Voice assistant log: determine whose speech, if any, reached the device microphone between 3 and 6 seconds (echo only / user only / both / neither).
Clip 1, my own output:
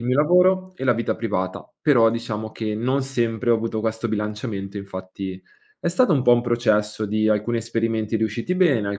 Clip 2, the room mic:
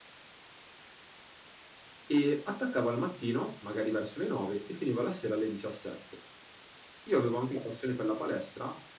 user only